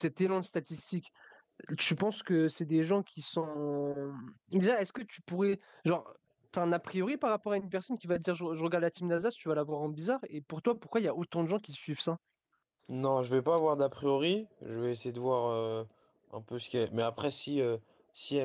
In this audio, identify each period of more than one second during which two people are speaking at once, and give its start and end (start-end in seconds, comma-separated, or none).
none